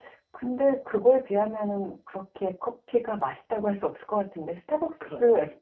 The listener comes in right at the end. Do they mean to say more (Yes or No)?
No